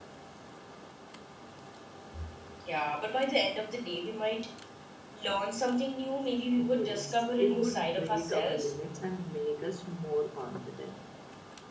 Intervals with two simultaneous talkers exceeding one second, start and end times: 6.7-8.7

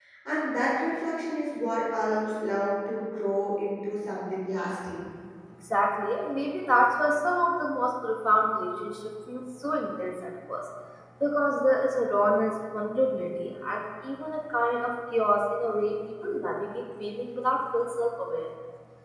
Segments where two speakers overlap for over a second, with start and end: none

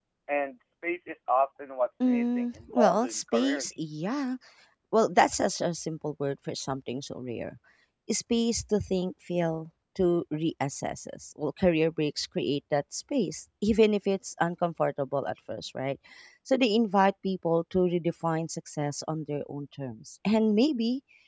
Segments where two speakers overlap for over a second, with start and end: 2.0-3.6

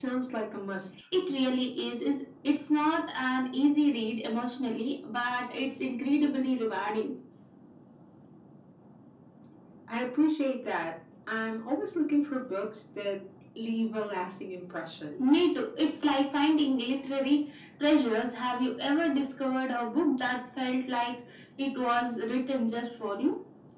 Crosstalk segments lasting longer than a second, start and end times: none

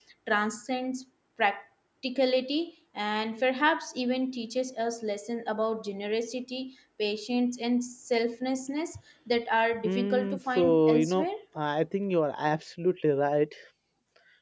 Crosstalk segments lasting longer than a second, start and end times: 9.8-11.3

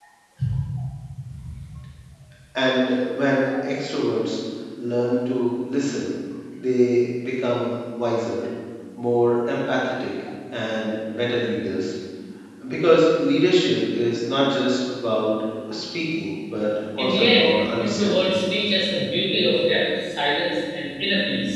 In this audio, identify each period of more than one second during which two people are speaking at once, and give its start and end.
17.0-18.4

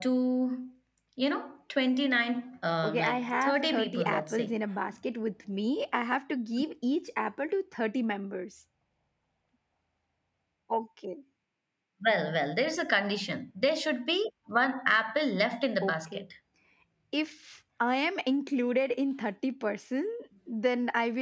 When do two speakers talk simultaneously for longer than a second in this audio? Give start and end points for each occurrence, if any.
2.8-4.5

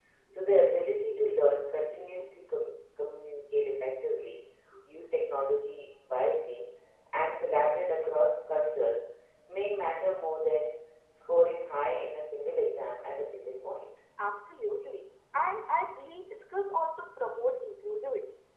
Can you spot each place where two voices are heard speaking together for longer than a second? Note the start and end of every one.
none

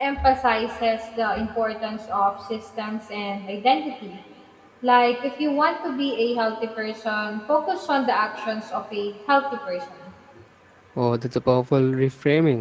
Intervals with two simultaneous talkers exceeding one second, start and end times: none

